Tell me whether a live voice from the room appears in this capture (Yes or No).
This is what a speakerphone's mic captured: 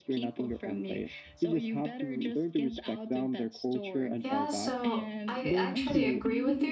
Yes